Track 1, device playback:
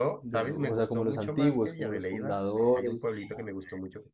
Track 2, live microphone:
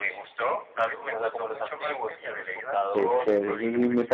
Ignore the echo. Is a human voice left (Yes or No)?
Yes